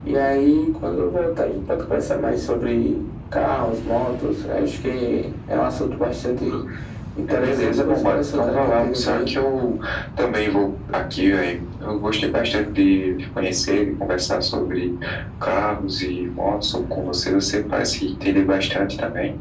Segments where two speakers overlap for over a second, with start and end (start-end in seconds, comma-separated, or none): 7.3-9.3